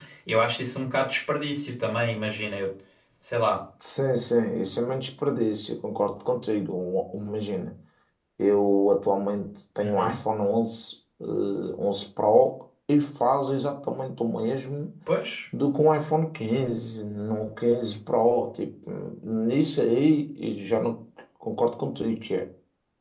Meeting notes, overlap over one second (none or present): none